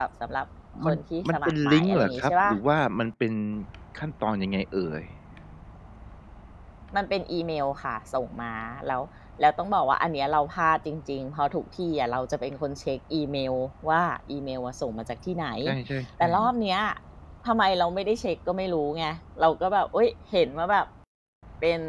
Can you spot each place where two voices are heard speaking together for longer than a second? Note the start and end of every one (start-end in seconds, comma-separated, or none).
0.8-2.5